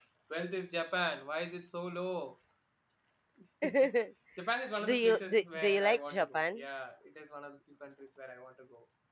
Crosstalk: present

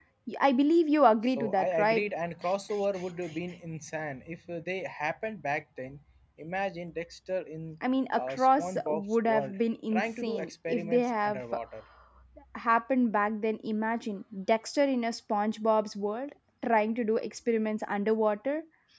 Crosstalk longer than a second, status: present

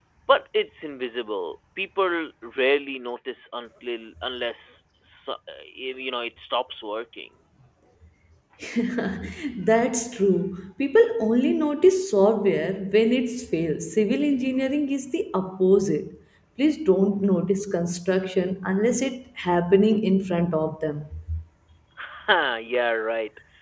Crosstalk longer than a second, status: none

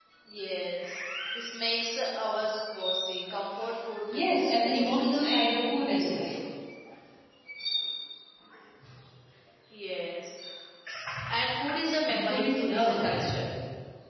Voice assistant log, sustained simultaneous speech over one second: present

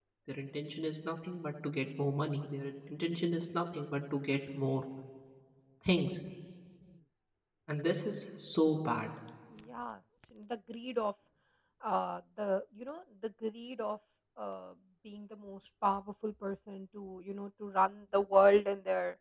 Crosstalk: none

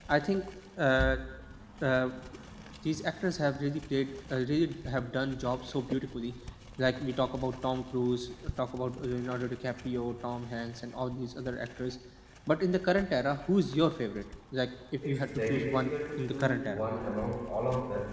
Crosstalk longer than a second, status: present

